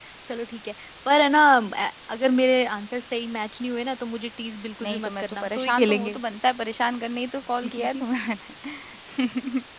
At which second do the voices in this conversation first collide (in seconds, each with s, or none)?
4.8 s